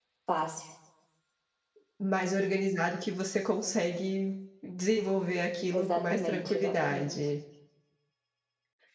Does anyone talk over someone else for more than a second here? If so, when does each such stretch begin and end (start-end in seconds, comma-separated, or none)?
5.7-7.2